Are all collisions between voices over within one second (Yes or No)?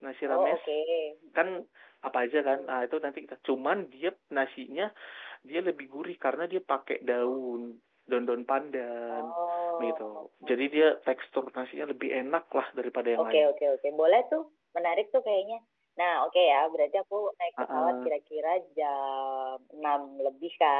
Yes